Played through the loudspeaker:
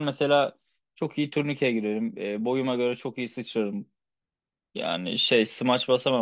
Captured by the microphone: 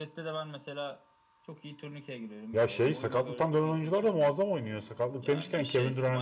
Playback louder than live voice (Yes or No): No